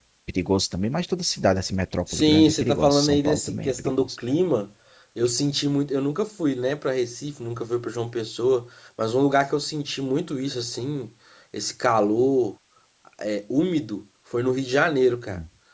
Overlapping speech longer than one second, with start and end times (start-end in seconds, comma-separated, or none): 2.1-4.1